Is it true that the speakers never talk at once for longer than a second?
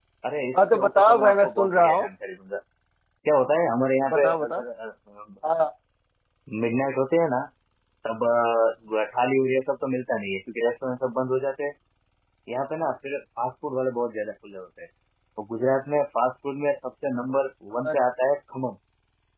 No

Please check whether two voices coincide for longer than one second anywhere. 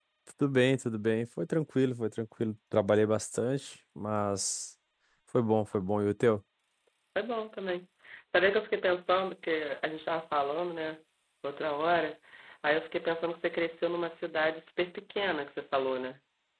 No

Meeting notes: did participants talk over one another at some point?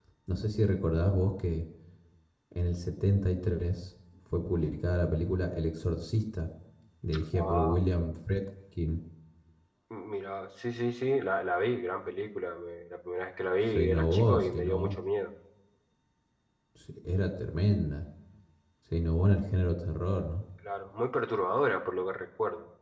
Yes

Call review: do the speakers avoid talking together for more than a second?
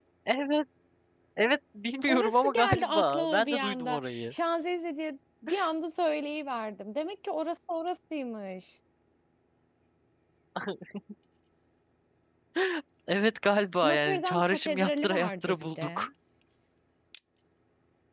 No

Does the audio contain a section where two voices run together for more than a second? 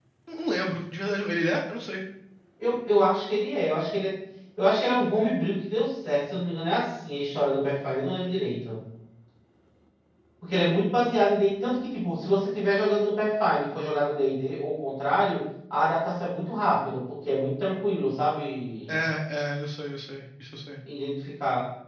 No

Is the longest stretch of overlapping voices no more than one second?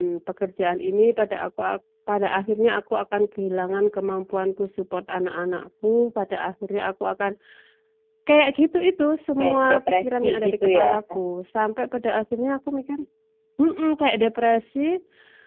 No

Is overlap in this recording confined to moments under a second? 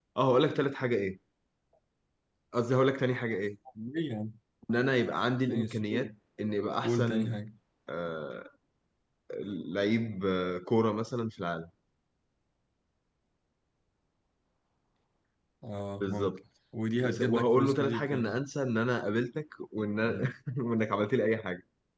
No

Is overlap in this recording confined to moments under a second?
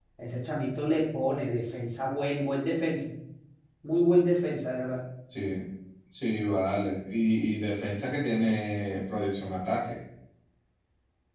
Yes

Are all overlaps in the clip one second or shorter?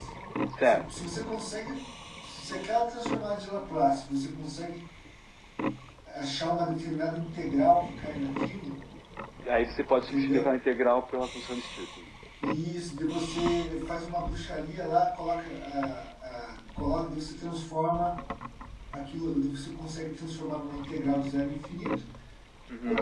Yes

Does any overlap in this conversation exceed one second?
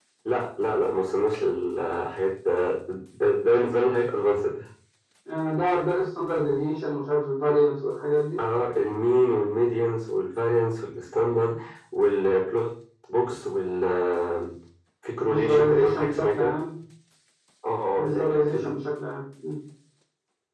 Yes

